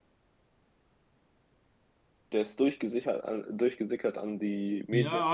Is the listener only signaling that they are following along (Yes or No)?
No